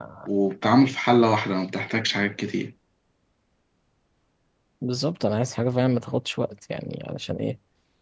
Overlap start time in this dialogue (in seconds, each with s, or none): none